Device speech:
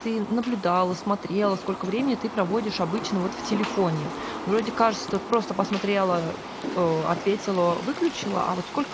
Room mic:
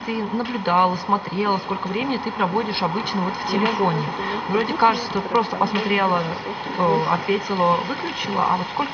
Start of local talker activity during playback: 3.5 s

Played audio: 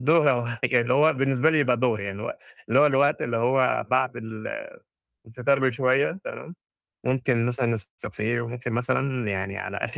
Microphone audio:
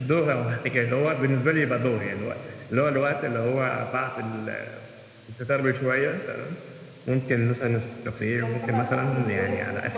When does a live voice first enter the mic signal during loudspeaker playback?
8.3 s

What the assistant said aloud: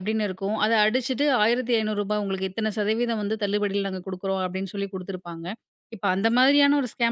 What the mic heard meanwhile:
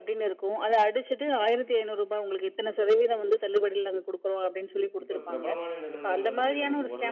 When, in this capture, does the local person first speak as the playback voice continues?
5.0 s

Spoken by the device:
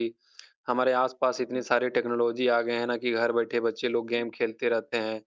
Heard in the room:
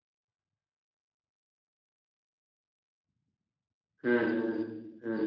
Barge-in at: 4.0 s

